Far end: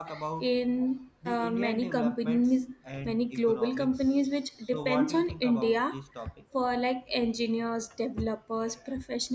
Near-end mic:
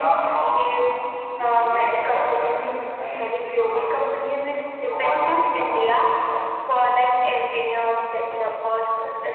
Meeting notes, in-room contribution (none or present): none